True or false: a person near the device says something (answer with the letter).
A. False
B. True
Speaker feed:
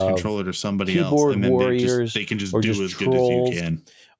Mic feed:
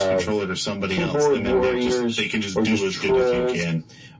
A